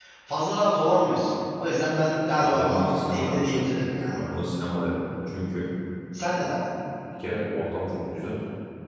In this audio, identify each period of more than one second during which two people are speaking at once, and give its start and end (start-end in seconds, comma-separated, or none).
2.4-3.6